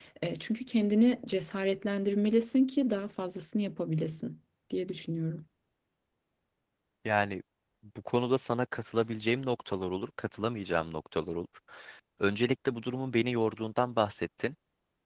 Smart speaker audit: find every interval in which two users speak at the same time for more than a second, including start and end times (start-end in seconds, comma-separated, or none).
none